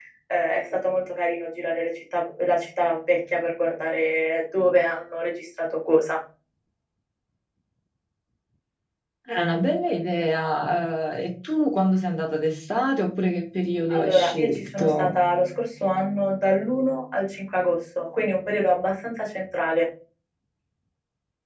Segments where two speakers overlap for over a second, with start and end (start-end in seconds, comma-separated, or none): 13.9-15.2